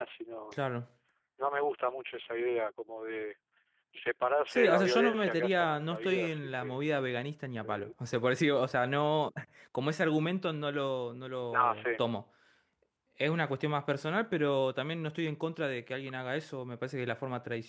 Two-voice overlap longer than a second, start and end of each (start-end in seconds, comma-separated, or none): 4.5-6.8